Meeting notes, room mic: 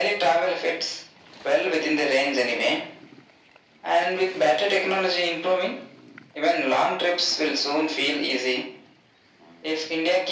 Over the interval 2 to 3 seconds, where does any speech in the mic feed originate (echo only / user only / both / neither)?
echo only